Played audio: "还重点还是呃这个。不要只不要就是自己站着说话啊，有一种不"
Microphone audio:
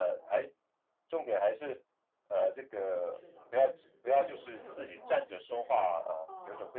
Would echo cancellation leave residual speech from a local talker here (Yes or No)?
Yes